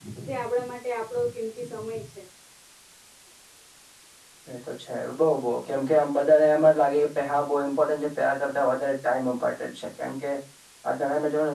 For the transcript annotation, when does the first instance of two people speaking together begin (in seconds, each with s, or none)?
none